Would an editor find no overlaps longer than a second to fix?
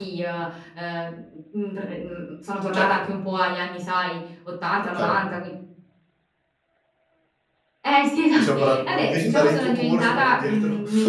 No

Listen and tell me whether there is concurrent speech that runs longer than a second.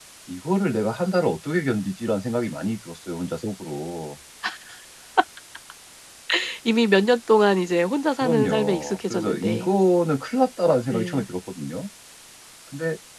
Yes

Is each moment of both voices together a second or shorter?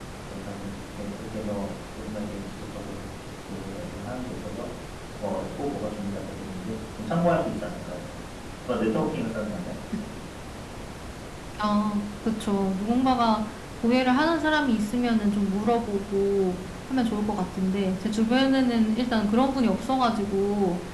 Yes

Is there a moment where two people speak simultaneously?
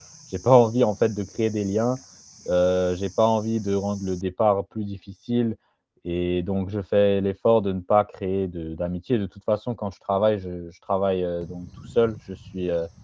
No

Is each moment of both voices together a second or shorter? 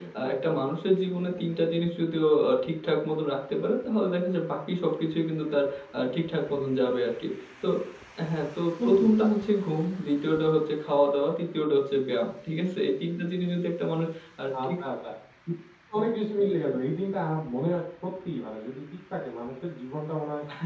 Yes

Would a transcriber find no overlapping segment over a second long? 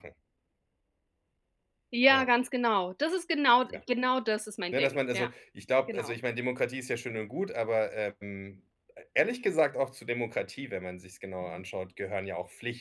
Yes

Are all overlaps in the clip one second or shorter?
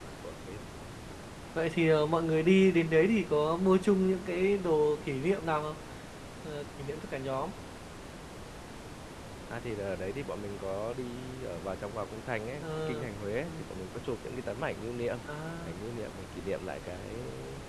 Yes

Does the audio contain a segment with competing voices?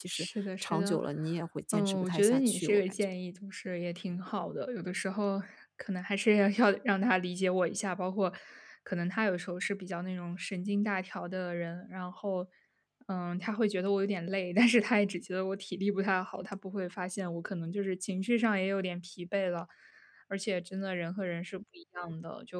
Yes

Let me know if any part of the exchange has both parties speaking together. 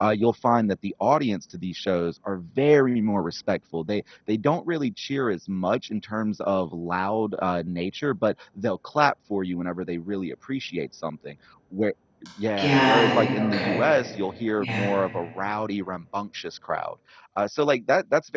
Yes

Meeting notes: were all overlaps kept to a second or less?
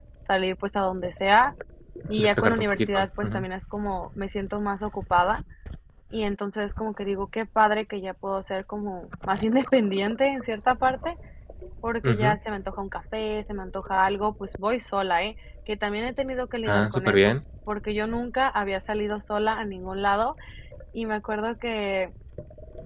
No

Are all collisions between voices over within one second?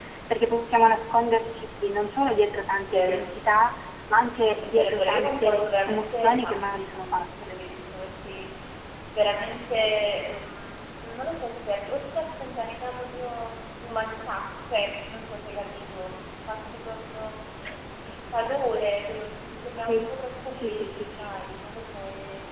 No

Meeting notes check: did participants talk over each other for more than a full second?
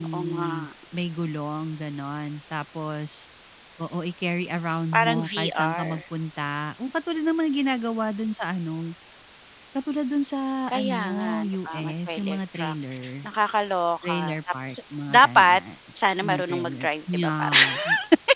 Yes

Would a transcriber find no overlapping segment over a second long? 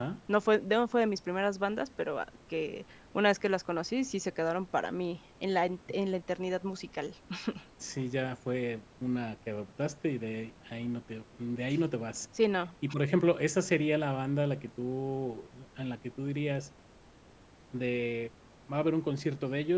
Yes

